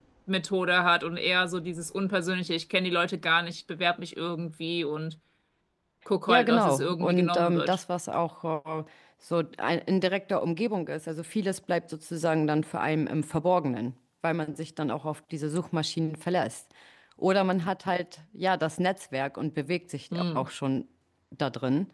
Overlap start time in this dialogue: 6.3 s

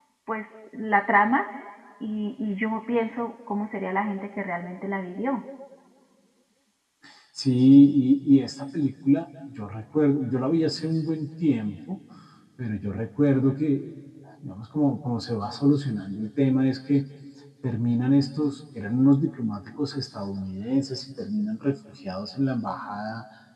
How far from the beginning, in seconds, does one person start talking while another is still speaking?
none

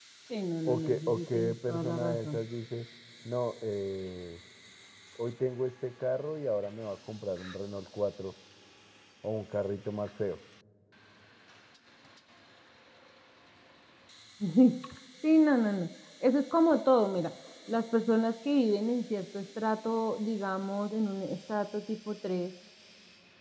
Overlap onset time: 0.6 s

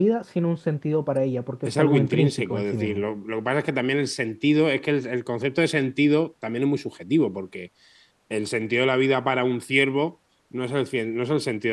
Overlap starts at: 1.6 s

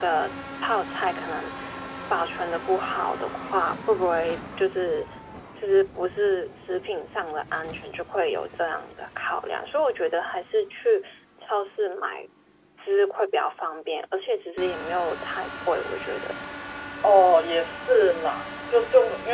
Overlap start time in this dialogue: none

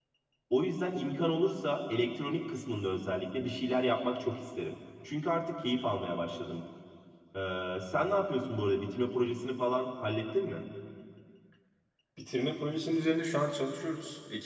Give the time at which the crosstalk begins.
none

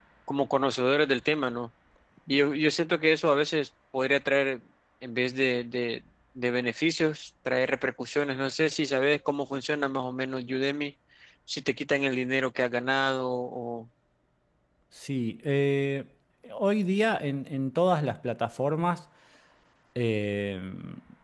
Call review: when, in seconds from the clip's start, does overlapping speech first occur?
none

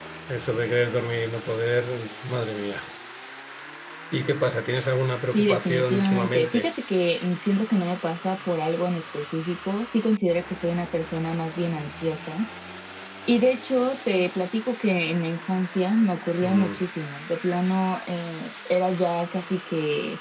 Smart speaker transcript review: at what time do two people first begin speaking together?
5.3 s

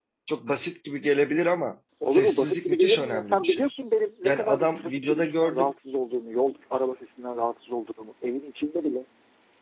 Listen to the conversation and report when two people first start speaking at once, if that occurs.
2.1 s

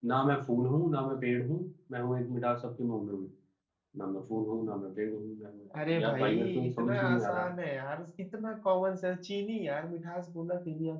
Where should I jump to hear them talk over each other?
5.7 s

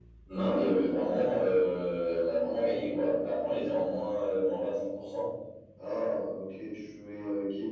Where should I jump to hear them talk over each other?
none

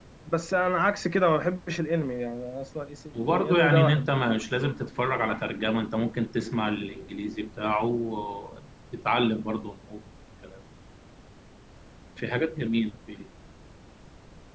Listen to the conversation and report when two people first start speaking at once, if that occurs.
3.1 s

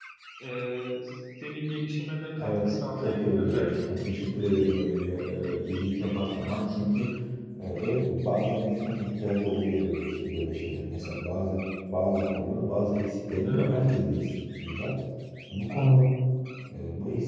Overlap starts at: 2.4 s

